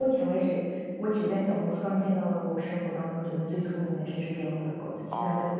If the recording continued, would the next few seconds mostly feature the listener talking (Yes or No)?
Yes